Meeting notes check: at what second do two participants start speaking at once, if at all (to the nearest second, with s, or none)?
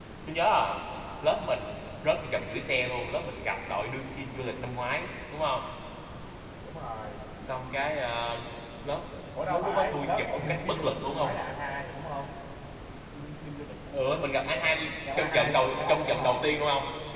9 s